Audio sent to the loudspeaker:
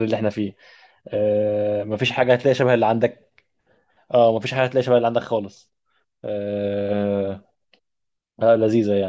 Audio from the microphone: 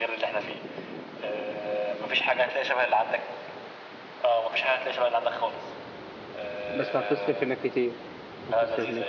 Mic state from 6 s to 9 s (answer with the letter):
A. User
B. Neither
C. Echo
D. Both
D